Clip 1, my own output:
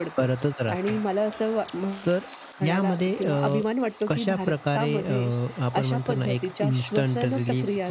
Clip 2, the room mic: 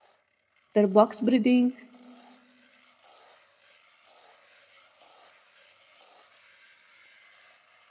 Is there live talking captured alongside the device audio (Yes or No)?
Yes